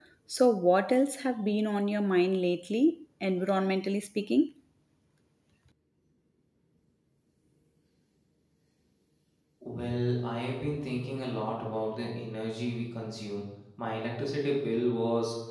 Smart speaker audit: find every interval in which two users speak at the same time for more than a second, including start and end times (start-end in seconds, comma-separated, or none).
none